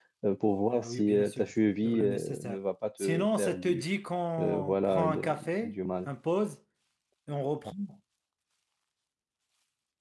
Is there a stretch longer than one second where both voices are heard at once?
Yes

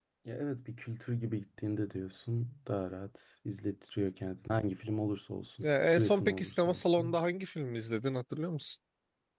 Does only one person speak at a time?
No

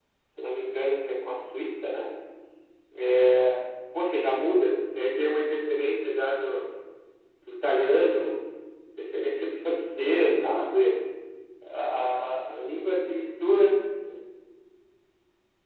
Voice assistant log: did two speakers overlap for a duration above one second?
No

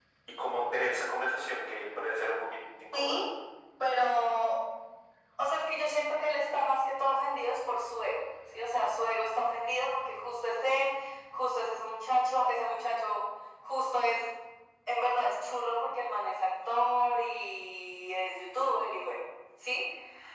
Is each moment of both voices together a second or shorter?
Yes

